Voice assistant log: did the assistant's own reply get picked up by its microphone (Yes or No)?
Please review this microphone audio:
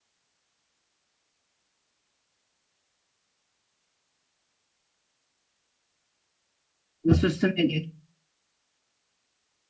No